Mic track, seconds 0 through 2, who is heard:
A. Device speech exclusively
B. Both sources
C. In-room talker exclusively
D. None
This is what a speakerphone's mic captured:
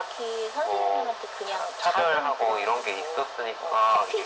A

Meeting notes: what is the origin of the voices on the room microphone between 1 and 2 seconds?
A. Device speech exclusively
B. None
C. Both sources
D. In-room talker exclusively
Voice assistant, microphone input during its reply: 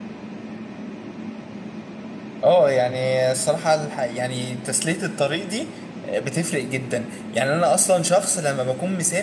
B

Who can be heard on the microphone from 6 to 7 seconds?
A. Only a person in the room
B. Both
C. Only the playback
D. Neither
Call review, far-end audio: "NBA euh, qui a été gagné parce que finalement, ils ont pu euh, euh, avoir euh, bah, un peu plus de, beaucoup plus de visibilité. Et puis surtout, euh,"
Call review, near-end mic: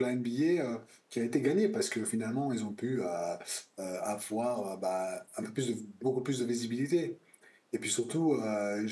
C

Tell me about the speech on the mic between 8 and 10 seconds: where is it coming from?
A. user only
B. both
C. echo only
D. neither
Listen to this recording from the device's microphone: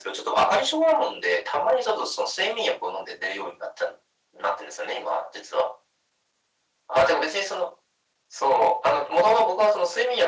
C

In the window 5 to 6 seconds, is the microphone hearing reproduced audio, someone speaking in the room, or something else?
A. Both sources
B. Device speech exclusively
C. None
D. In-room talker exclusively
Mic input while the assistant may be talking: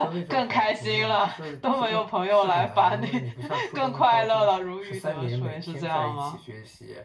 B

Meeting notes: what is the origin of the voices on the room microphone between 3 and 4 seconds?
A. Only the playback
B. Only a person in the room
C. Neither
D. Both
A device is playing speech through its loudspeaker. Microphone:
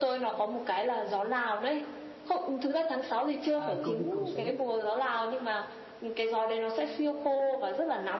D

